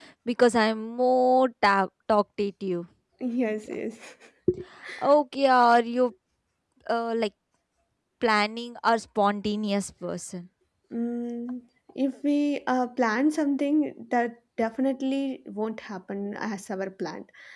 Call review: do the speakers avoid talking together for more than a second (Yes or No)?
Yes